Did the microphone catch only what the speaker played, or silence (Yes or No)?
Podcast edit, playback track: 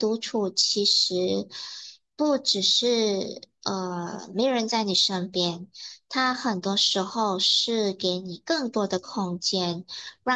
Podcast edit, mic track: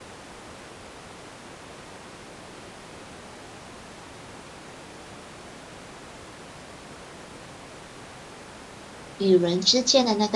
No